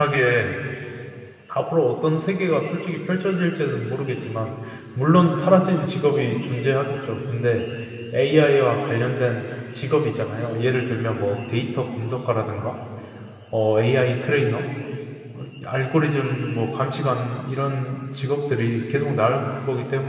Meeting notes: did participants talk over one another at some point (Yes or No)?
No